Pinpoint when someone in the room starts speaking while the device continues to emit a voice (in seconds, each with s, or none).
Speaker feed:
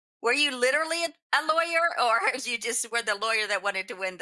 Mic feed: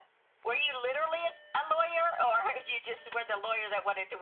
none